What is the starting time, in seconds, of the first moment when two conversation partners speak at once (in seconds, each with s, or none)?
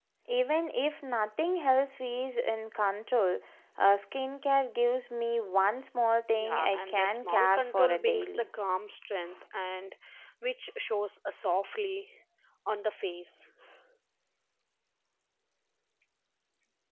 6.3 s